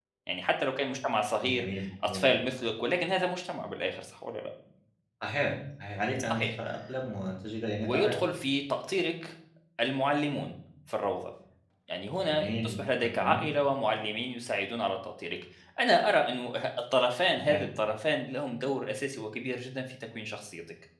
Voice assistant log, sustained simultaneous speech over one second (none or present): present